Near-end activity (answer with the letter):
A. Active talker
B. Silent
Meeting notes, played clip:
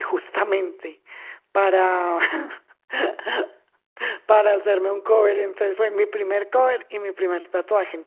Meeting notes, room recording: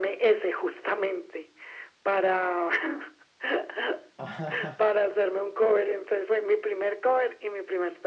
A